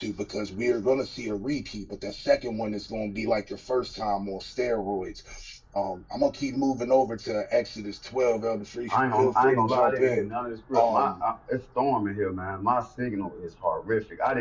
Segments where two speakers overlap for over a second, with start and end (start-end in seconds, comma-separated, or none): 8.9-10.3